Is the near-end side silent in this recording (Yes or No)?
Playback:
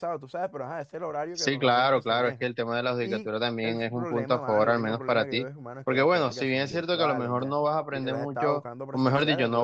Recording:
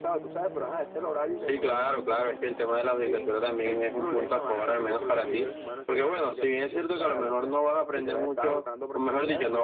Yes